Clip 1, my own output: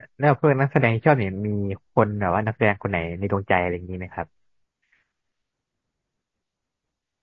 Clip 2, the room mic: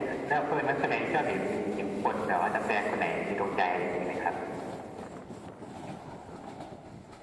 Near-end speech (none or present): none